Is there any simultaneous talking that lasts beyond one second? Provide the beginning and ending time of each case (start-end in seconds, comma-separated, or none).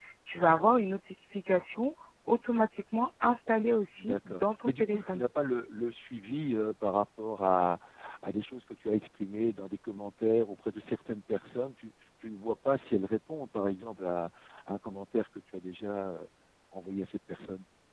4.0-5.2